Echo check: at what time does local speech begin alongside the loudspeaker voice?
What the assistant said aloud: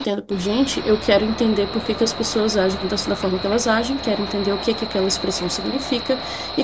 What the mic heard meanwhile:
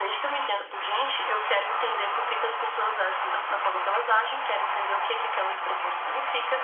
none

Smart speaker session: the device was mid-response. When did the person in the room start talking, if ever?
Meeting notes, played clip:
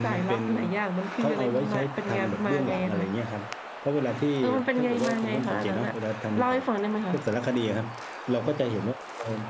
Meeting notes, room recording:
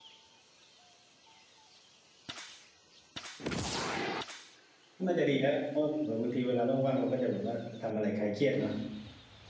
5.1 s

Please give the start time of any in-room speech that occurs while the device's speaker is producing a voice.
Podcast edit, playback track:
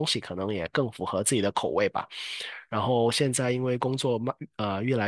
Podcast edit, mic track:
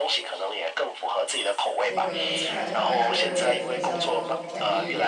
1.9 s

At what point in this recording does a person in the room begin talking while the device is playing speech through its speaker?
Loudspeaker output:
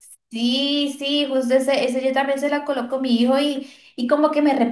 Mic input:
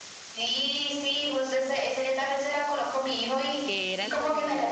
3.6 s

